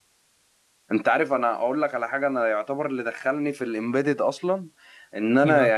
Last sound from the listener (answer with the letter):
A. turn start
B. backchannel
B